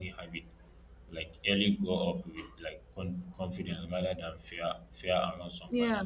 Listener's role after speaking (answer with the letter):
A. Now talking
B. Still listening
A